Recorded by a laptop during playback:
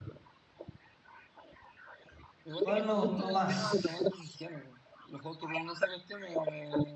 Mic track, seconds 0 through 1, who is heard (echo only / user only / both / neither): neither